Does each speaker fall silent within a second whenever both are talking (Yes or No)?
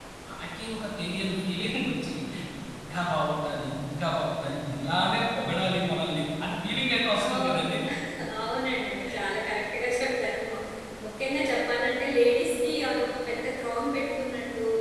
Yes